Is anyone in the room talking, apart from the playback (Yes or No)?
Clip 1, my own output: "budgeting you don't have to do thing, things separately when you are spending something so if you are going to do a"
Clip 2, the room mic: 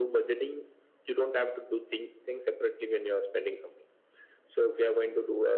No